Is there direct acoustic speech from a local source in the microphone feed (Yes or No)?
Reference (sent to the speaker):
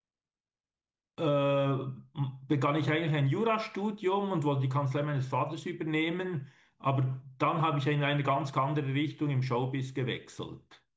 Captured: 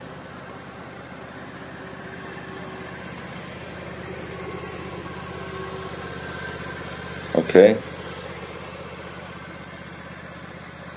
Yes